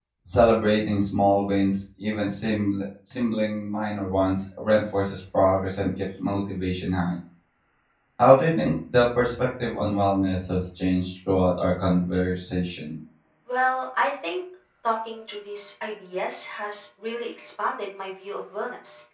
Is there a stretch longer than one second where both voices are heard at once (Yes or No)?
No